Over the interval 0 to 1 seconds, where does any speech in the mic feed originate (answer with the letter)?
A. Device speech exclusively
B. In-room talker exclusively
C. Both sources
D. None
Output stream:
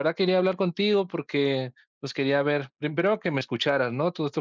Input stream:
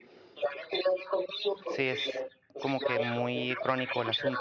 A